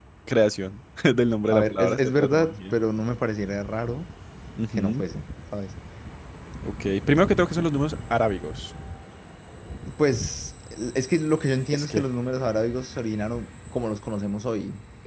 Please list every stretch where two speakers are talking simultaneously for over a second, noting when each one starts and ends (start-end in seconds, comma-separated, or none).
1.5-2.8